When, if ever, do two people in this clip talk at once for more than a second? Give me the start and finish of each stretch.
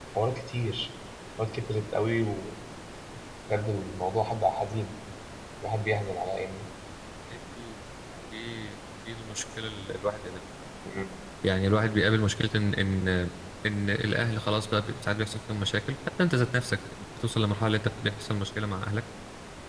none

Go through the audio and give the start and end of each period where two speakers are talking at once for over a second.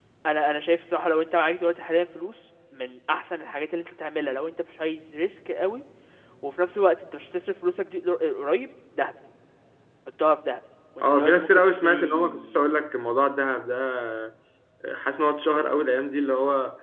11.0-12.6

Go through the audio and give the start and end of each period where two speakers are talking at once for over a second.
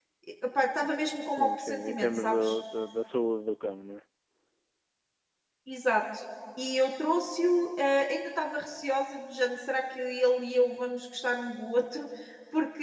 1.3-2.6

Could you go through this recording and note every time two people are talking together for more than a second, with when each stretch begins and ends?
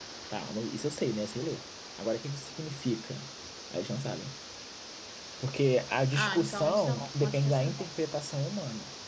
6.1-7.8

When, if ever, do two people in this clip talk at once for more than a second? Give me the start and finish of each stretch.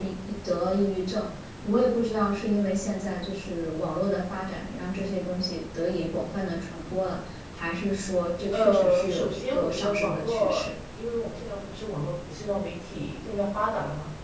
8.5-10.6

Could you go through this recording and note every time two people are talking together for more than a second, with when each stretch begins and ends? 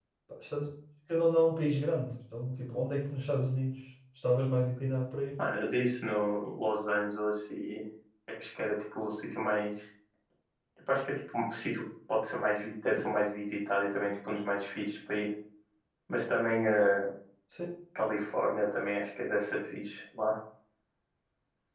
none

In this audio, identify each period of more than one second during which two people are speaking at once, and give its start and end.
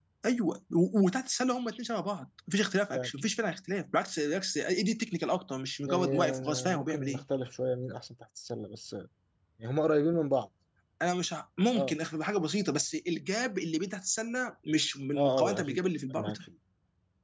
5.8-7.2, 15.2-16.4

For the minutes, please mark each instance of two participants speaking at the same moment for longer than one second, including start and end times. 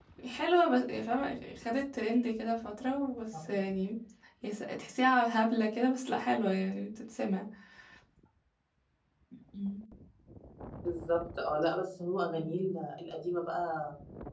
none

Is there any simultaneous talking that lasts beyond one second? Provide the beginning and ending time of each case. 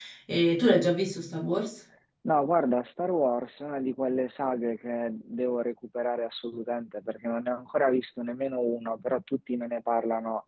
none

